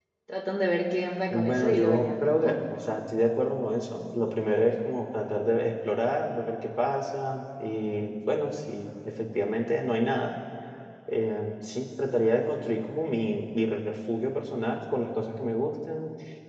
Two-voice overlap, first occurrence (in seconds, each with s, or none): 1.3 s